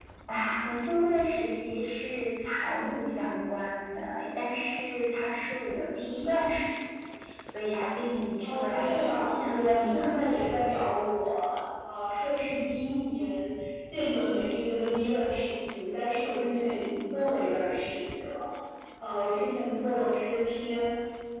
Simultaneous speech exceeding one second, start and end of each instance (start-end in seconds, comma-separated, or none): 8.4-10.2